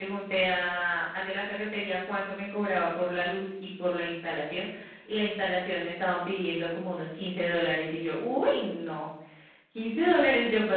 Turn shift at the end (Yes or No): No